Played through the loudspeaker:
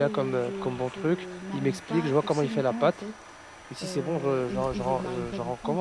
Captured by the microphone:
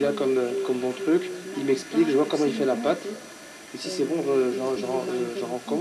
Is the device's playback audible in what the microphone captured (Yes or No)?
Yes